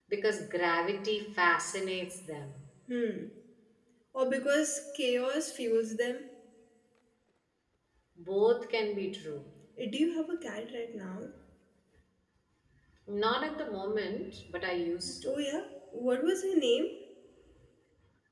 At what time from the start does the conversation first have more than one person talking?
none

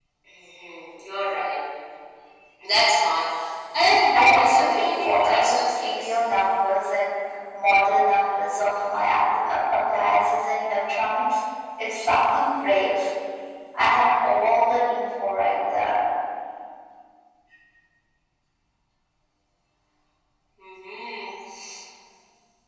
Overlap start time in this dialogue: 4.1 s

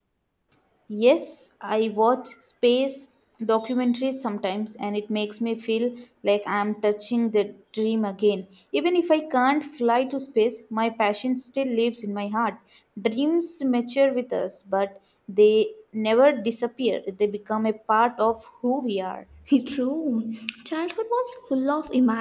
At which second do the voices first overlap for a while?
none

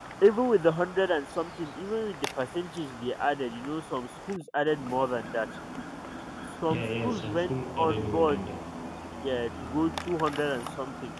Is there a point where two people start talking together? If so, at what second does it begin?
6.7 s

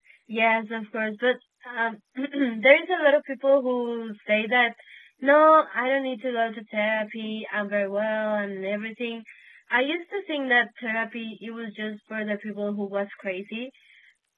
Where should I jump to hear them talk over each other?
none

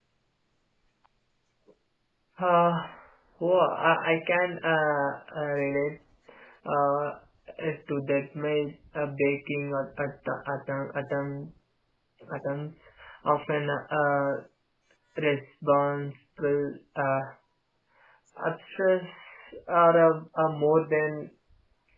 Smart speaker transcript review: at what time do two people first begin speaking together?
none

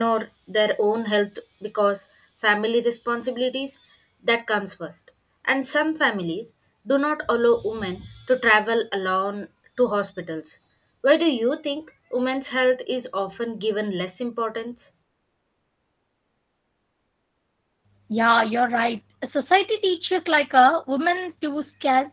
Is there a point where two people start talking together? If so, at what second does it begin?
none

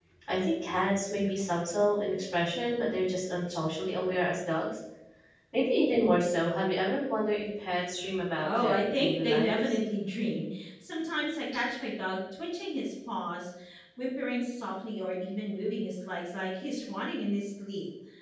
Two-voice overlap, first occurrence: 8.4 s

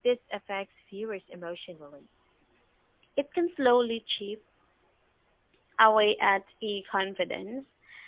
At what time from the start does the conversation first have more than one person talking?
none

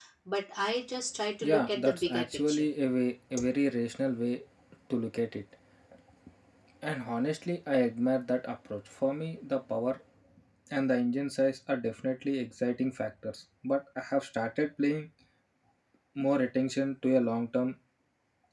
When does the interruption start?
1.4 s

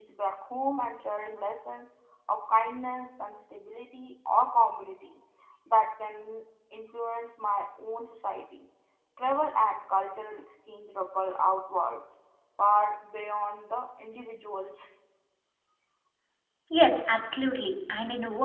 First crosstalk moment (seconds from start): none

